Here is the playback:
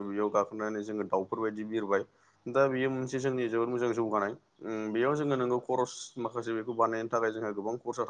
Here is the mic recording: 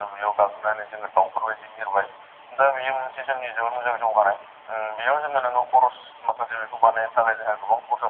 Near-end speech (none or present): none